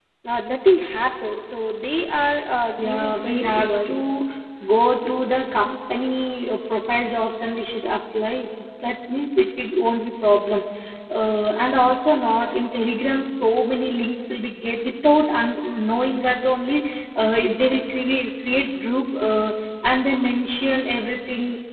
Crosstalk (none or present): present